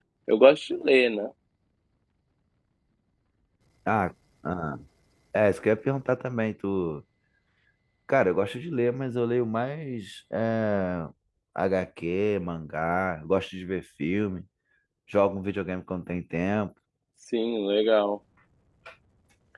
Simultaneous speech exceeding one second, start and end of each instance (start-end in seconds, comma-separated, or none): none